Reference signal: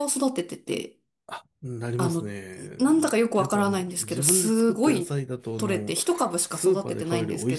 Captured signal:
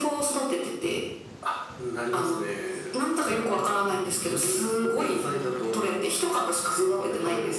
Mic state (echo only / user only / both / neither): echo only